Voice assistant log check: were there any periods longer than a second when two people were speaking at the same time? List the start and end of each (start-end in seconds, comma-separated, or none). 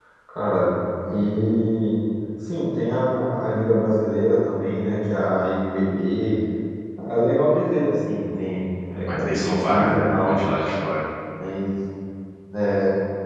9.1-10.3